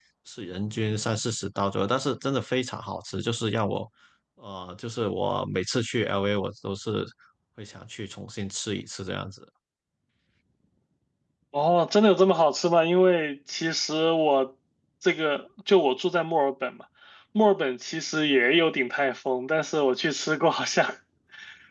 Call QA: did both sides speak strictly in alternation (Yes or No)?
Yes